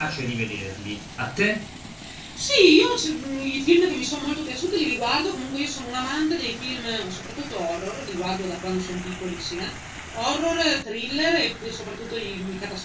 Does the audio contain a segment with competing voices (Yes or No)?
No